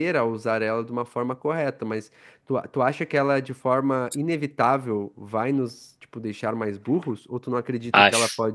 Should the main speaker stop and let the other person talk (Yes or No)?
No